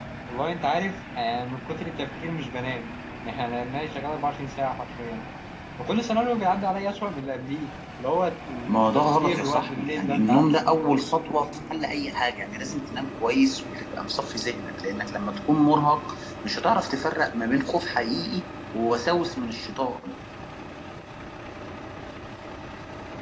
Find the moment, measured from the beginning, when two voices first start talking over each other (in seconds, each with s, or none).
8.7 s